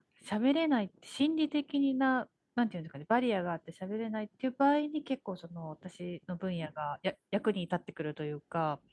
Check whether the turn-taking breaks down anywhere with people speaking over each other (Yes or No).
No